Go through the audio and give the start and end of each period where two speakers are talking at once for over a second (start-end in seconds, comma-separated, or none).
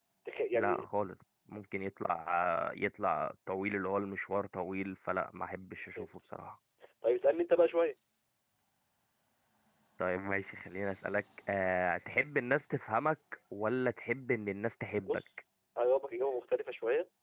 none